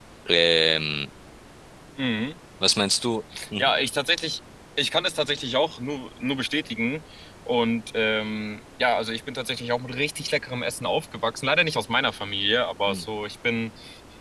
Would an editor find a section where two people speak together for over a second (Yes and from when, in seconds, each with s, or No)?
No